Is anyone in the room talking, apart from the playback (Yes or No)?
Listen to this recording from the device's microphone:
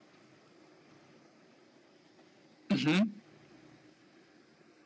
Yes